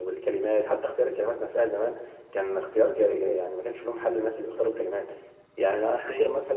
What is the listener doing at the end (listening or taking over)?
listening